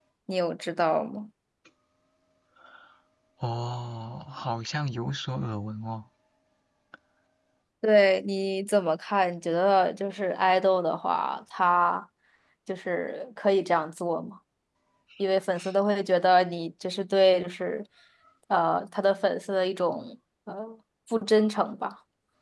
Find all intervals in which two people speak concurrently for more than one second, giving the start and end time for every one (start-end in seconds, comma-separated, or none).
none